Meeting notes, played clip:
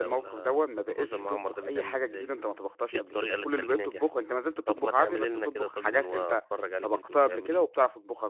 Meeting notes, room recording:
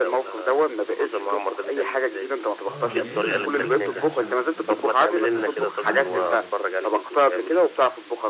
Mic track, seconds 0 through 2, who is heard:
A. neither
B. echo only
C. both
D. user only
B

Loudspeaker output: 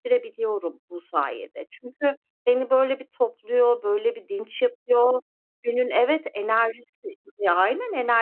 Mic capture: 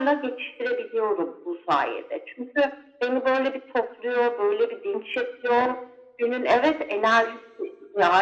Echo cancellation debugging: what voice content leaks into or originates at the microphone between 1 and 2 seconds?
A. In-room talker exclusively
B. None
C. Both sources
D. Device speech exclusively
D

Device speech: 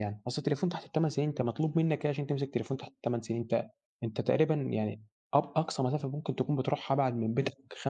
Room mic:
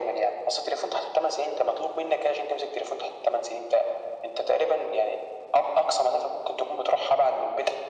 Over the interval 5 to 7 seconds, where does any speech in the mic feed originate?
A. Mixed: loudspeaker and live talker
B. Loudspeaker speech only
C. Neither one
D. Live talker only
B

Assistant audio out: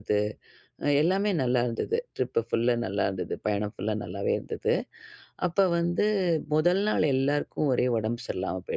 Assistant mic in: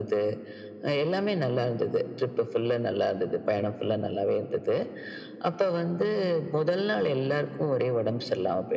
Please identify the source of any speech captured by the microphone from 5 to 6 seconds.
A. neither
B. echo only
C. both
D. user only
B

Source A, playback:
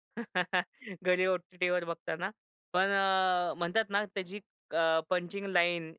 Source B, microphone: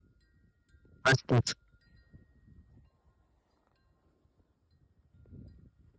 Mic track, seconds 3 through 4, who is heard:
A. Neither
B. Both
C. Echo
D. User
A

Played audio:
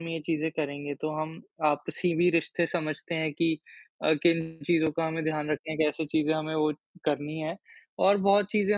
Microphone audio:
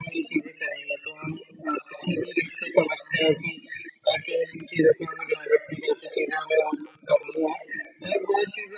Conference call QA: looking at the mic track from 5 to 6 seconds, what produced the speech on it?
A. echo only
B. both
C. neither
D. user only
A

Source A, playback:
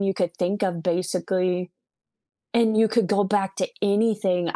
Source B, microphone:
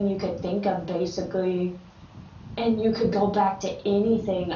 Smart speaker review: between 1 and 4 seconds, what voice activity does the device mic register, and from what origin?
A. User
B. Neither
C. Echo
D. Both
C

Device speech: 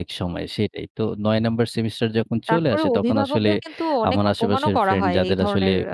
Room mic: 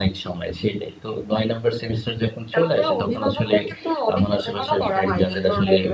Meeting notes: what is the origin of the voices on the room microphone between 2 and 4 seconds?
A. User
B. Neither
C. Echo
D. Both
C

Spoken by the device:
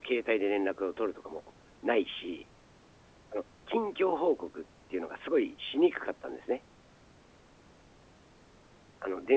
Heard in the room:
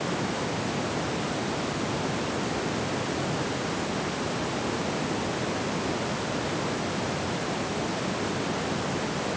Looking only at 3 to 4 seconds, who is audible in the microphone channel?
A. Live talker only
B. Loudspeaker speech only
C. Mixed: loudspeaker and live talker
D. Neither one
D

